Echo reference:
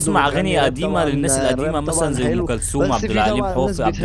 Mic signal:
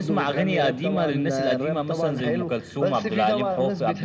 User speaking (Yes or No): No